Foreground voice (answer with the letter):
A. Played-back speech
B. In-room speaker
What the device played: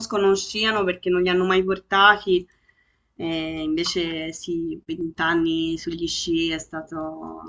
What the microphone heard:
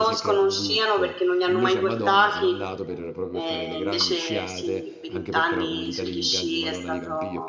A